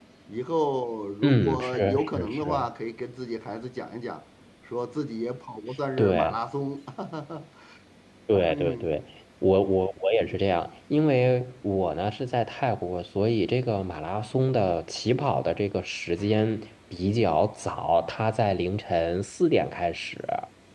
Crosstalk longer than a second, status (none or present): present